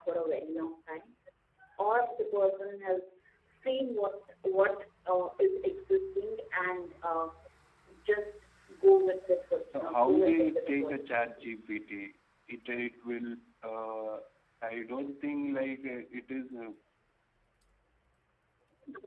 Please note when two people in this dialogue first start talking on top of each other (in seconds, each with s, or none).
9.7 s